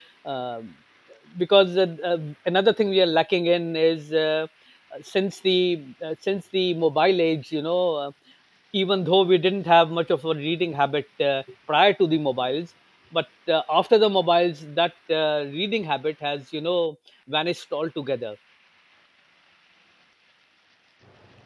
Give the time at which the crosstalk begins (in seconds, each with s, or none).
none